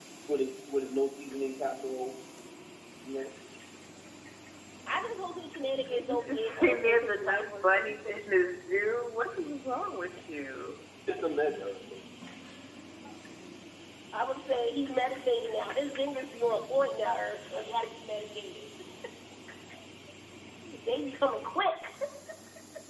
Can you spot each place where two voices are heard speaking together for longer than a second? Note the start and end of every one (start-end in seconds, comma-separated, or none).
5.9-8.2